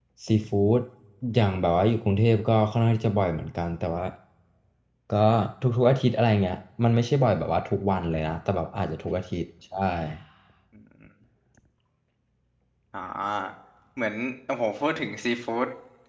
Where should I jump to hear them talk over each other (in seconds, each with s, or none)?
none